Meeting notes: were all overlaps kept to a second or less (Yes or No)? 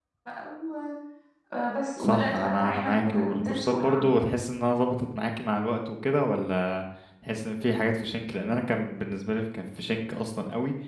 No